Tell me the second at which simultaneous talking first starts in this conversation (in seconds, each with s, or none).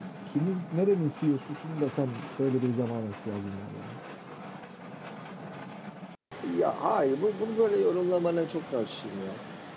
none